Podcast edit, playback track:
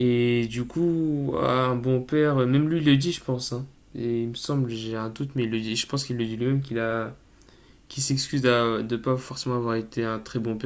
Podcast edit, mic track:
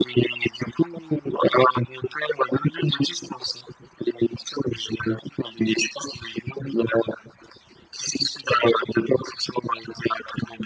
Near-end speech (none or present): none